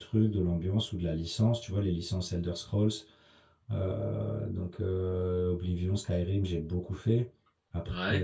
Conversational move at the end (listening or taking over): listening